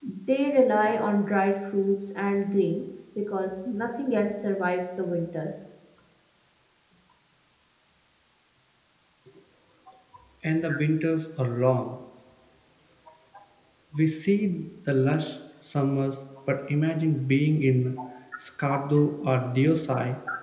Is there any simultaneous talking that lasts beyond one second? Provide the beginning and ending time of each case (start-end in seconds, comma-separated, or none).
none